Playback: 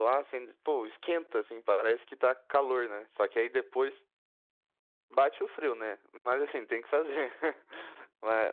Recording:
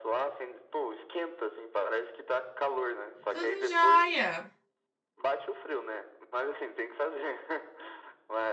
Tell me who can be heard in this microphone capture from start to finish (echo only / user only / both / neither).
both